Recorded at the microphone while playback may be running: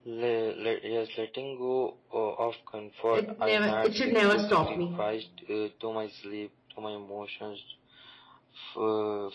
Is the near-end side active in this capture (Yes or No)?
Yes